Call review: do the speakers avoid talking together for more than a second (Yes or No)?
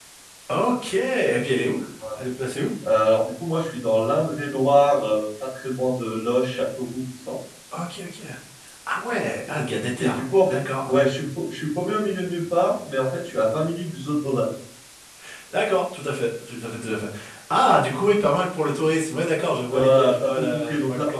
No